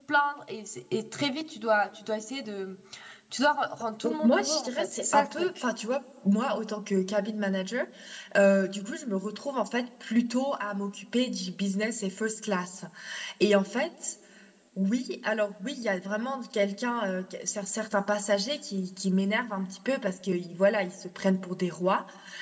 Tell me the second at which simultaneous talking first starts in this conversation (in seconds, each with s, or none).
4.0 s